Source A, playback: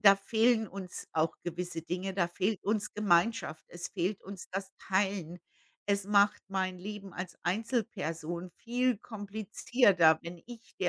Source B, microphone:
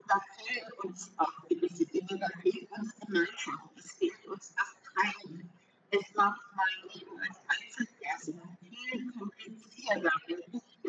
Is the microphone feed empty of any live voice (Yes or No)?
Yes